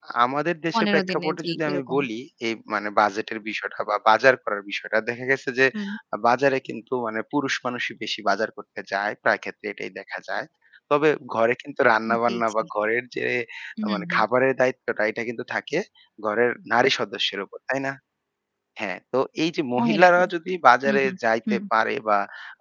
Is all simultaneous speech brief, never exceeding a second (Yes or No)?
No